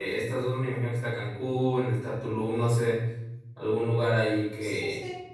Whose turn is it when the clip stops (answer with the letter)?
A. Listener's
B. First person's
A